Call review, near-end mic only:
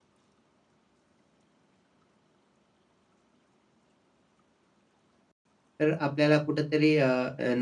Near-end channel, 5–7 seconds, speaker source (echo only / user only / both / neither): user only